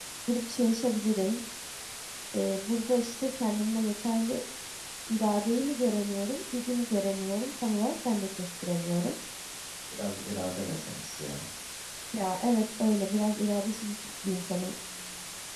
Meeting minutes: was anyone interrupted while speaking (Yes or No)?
No